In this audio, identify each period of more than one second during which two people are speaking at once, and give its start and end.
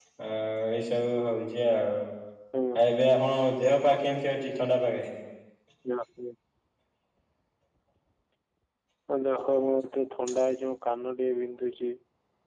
none

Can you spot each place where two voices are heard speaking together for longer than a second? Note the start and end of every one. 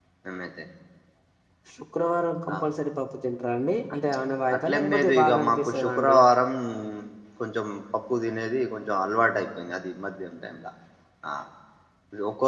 4.5-6.2

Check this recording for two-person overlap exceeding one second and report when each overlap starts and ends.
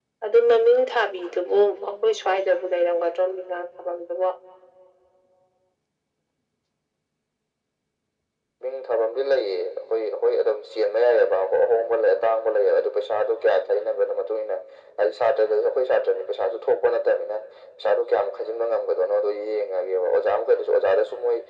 none

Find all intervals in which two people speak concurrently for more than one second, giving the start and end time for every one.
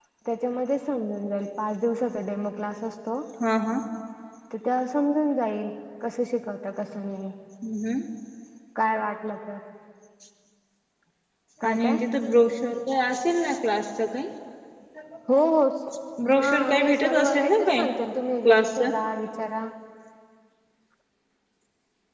16.3-17.9

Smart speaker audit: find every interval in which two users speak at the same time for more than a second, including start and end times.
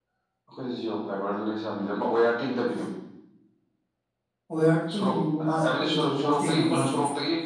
5.0-7.0

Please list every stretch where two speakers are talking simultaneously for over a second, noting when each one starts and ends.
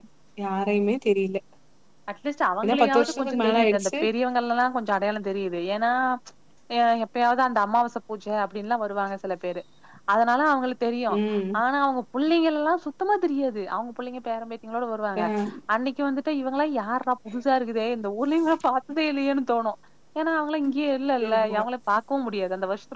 2.6-3.9

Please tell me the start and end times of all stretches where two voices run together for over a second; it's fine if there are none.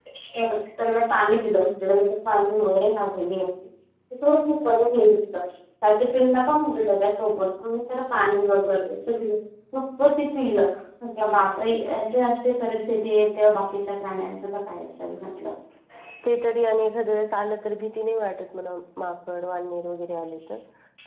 none

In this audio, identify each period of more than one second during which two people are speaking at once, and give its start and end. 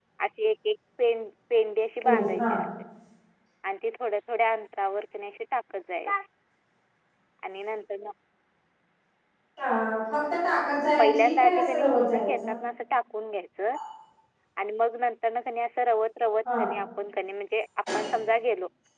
11.0-12.6

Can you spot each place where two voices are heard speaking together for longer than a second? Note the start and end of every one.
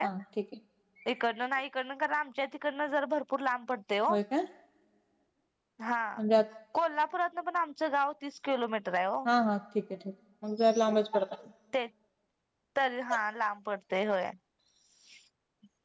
none

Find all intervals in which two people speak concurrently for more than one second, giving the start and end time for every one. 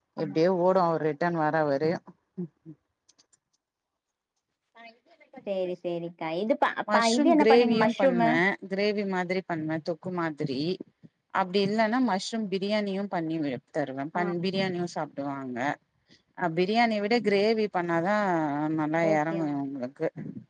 6.9-8.3

